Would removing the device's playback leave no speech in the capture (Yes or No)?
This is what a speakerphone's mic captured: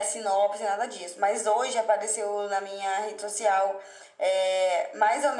Yes